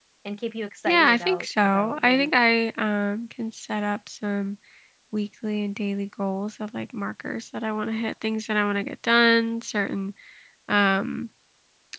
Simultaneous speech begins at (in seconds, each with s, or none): 0.9 s